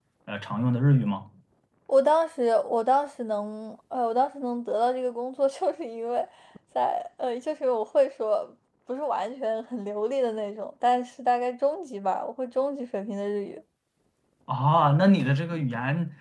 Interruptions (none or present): none